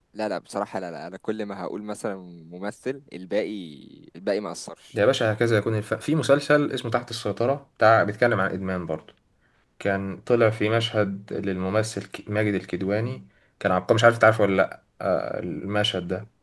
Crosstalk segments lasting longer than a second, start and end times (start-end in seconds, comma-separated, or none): none